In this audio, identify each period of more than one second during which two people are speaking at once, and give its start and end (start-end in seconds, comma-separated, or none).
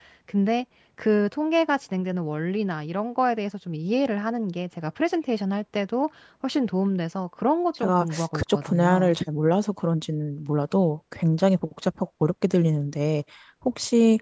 7.8-9.1